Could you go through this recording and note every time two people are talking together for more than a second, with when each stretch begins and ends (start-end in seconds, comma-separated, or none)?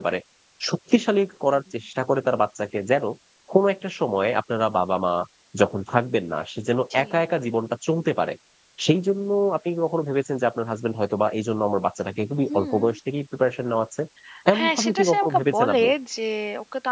14.6-15.8